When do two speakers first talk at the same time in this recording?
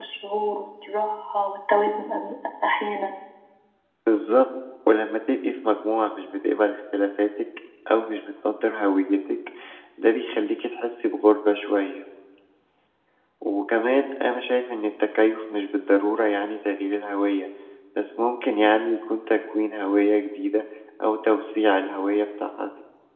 none

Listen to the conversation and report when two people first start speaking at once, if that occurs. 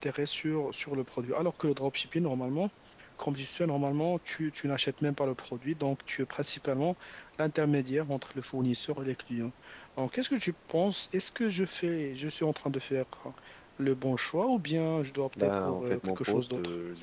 15 s

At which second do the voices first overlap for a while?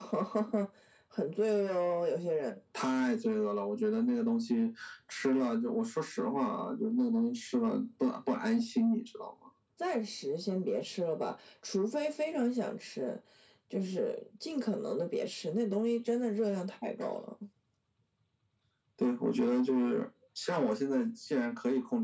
none

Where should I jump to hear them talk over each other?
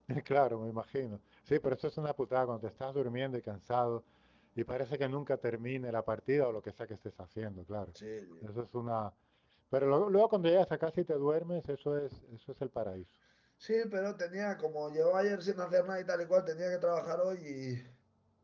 none

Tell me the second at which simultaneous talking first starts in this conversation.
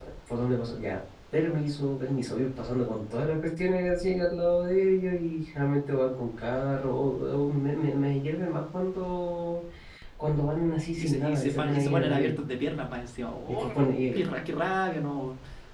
11 s

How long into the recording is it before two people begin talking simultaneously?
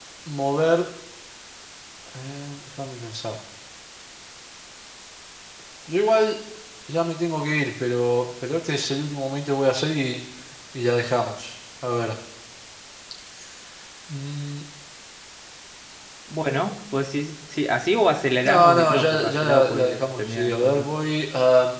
18 s

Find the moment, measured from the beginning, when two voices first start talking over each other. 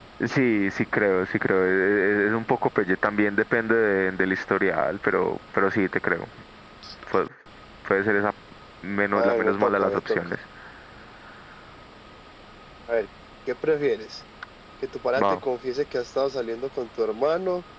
9 s

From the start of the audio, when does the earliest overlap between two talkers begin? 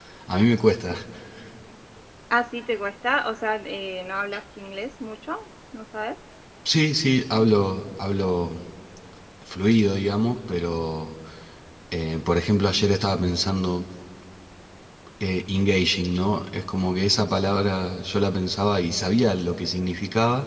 none

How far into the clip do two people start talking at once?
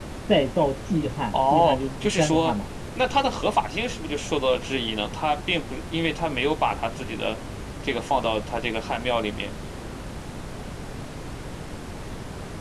1 s

